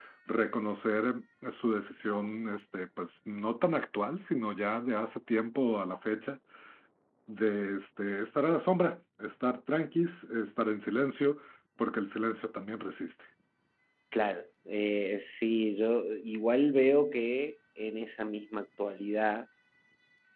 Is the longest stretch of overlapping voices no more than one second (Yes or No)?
Yes